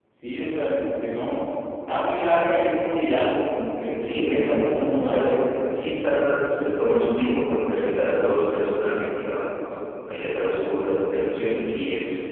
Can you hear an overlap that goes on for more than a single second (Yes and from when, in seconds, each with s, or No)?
Yes, from 4.0 s